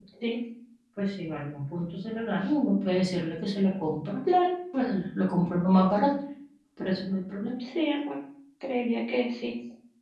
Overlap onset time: none

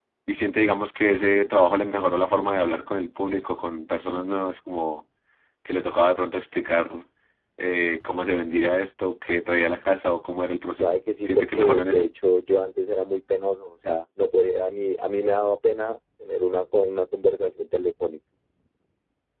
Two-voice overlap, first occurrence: 10.8 s

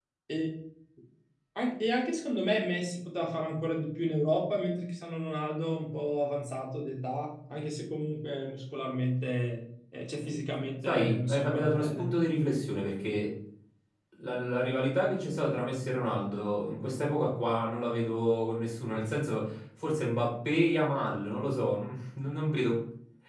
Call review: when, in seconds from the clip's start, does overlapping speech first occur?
10.8 s

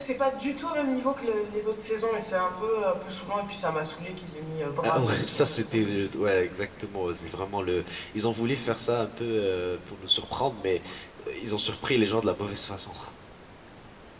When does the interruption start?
4.8 s

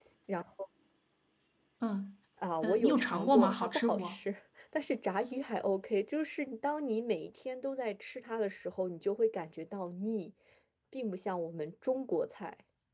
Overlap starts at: 2.6 s

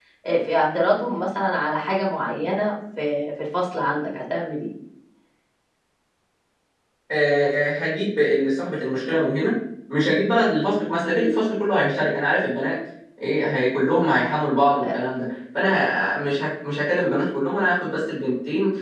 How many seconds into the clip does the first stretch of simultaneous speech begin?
none

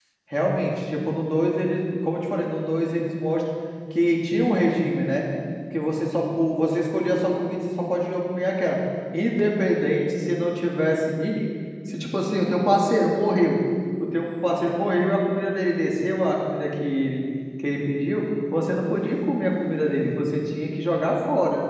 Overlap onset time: none

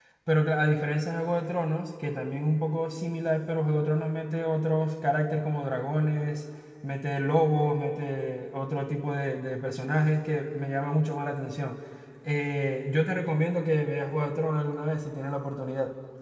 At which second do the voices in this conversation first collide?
none

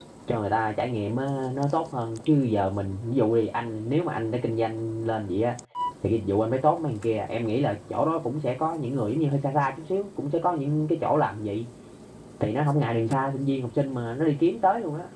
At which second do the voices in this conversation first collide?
none

